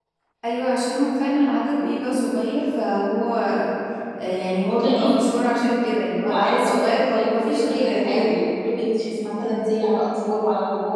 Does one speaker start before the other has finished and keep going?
Yes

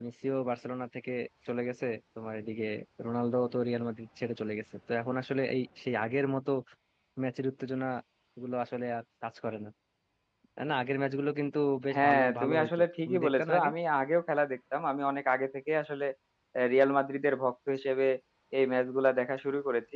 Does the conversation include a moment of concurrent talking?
Yes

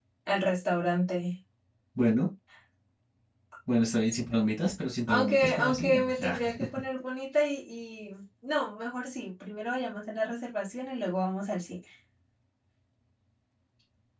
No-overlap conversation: No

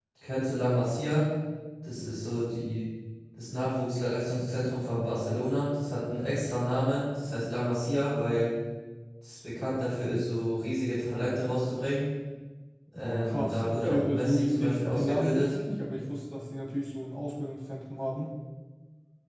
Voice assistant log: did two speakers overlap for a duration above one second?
Yes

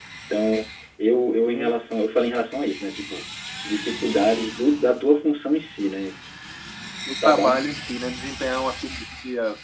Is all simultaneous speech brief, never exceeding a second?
Yes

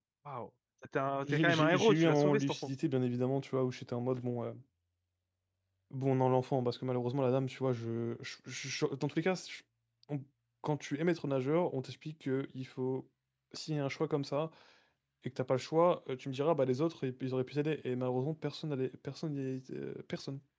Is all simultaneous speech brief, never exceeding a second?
No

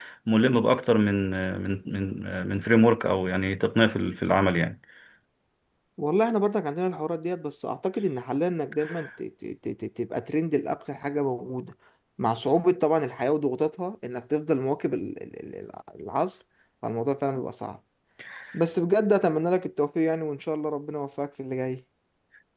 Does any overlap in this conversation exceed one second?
No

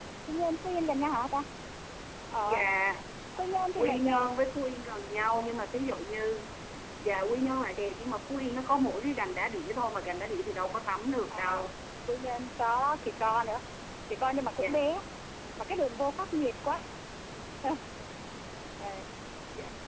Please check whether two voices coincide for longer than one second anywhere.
No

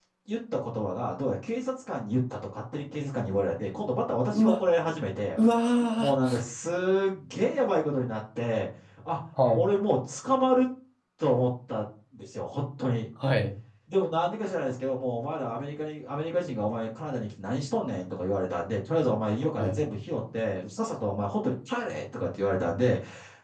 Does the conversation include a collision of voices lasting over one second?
No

